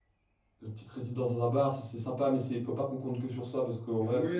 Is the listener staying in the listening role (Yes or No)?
No